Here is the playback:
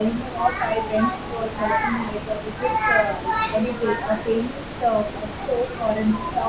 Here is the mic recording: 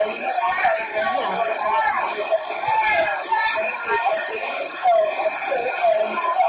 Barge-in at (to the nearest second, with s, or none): 1 s